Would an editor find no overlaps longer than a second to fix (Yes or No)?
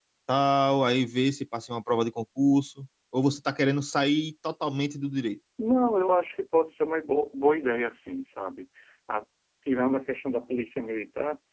Yes